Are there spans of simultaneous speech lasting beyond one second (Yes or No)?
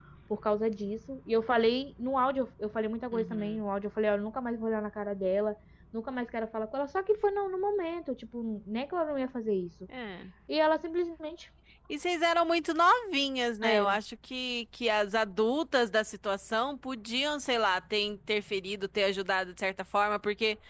No